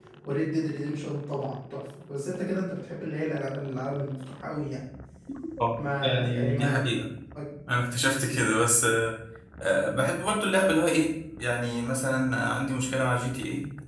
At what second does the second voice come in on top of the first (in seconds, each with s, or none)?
5.8 s